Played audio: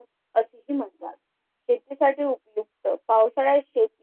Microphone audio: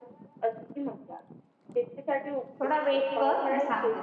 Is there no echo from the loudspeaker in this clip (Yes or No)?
No